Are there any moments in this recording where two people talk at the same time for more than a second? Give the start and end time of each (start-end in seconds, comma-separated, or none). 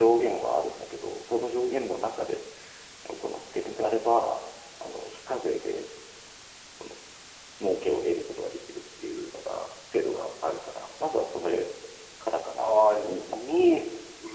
12.6-13.8